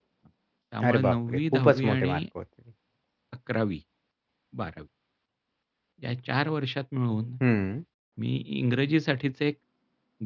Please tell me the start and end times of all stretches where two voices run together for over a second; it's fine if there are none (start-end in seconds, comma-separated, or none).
0.9-2.2